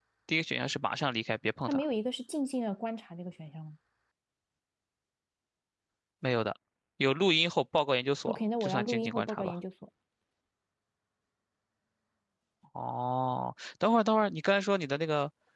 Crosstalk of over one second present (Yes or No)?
Yes